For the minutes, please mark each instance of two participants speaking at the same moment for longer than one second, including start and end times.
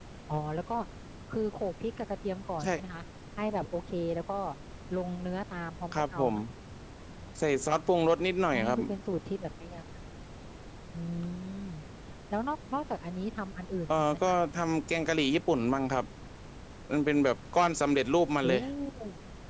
none

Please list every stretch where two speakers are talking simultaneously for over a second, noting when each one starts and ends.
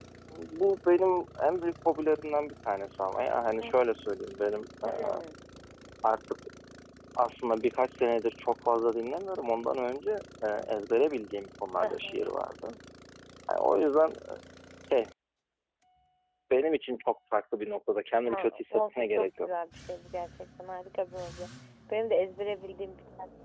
18.2-19.5

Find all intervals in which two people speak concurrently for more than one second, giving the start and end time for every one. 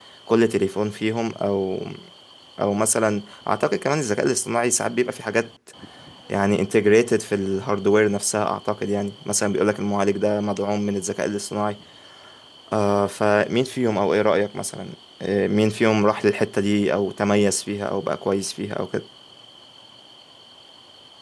none

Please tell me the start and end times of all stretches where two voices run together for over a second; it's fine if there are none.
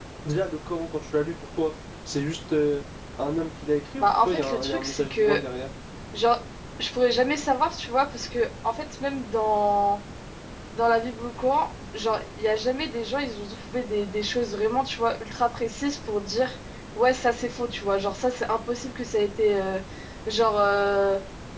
4.0-5.4

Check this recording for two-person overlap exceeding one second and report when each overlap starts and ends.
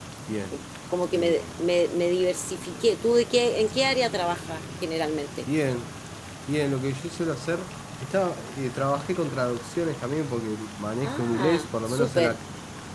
11.0-12.4

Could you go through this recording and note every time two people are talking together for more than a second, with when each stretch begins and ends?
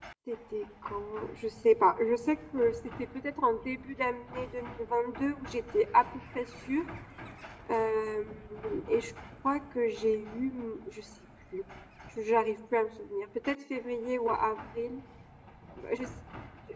none

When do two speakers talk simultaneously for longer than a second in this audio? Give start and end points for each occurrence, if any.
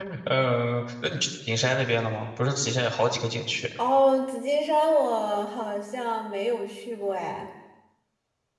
none

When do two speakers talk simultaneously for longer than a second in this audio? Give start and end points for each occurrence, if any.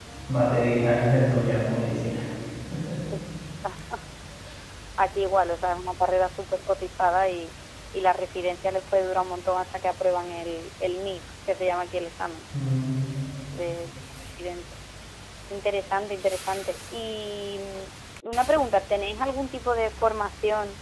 none

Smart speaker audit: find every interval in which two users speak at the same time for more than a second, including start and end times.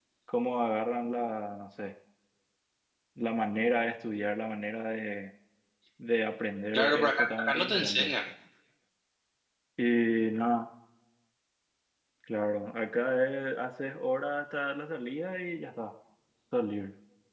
6.7-8.1

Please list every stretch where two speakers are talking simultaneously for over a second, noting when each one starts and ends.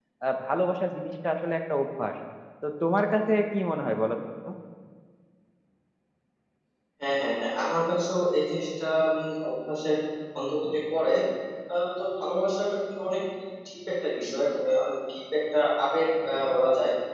none

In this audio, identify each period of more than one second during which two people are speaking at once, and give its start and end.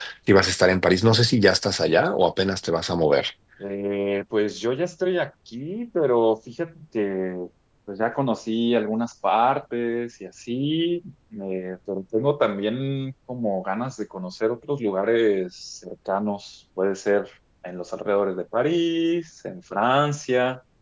none

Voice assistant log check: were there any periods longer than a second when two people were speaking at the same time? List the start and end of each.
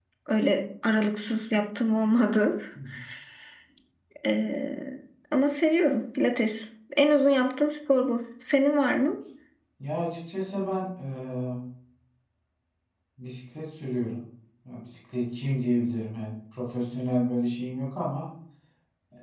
none

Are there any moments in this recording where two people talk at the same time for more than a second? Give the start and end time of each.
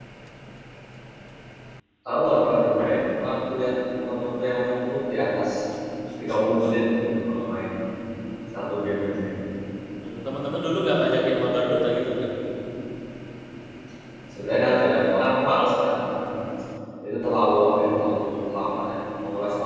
none

